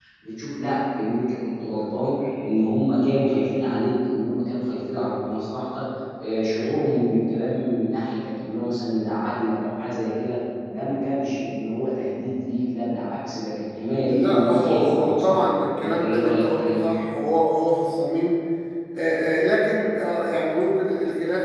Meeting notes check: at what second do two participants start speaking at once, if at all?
13.9 s

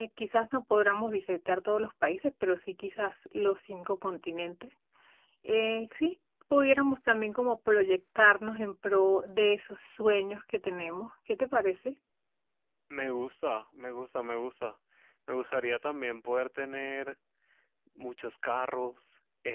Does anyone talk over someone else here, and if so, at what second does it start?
none

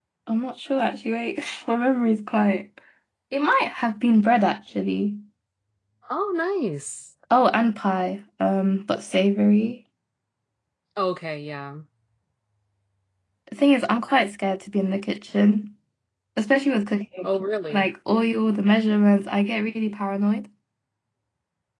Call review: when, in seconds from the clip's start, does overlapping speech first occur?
none

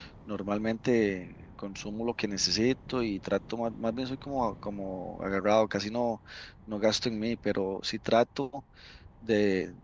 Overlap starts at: none

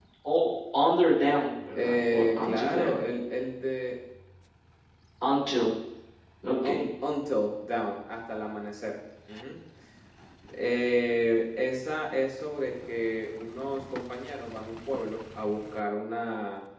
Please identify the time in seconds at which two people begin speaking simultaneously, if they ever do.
1.8 s

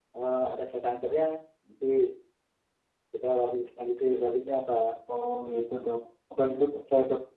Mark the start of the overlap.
none

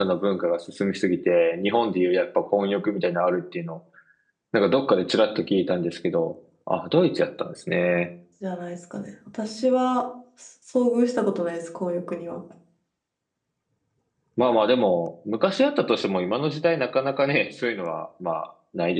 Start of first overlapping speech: none

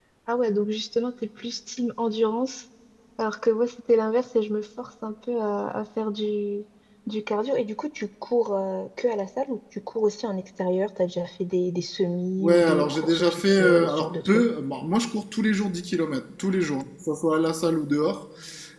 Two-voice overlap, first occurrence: 12.4 s

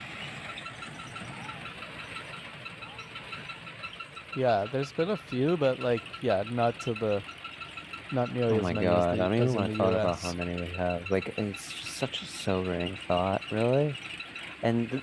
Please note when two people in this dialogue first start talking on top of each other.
8.5 s

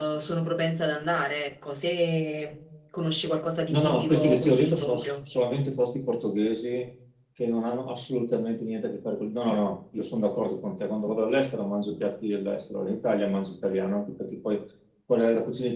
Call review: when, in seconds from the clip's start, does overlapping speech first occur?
3.7 s

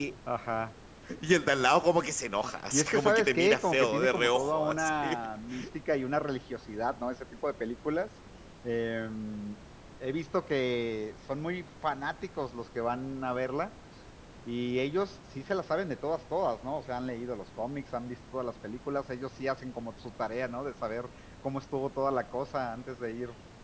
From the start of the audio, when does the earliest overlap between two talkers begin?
2.7 s

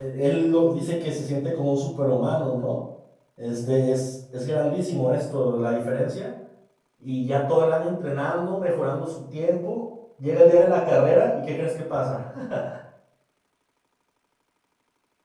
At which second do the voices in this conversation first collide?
none

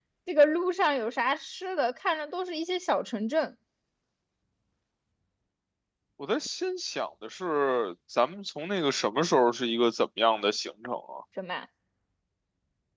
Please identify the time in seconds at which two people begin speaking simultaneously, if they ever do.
none

